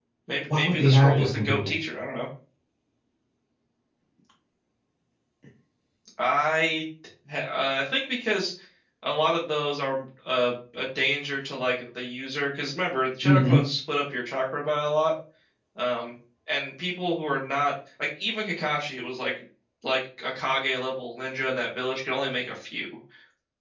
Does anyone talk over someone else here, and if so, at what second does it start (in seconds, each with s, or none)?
0.5 s